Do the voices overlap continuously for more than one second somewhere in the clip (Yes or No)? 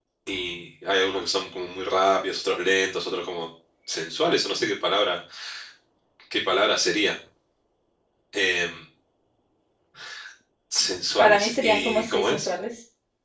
Yes